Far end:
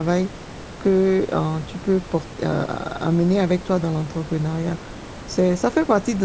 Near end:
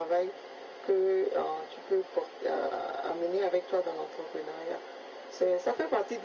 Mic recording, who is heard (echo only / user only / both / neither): echo only